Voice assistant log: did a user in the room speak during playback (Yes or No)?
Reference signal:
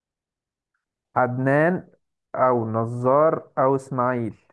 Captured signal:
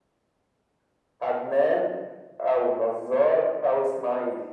No